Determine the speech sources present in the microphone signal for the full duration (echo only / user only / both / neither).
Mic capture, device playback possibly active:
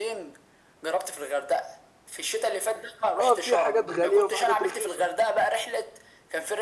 both